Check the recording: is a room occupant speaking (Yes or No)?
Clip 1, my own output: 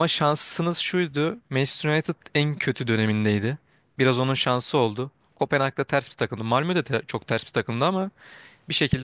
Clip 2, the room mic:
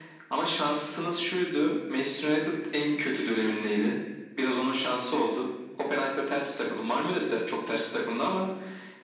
No